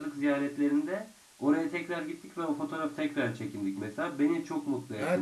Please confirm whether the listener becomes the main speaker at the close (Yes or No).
Yes